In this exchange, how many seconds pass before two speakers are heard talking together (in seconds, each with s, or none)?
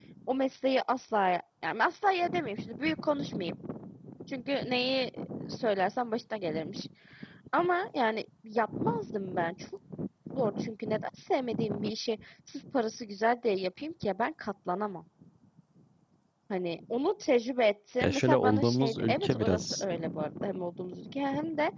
18.0 s